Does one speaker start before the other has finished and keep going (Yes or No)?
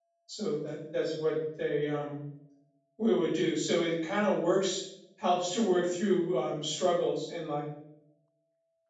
No